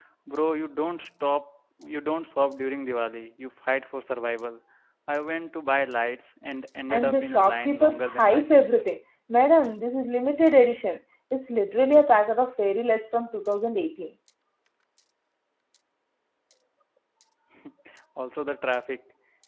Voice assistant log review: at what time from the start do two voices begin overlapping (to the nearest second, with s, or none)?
7 s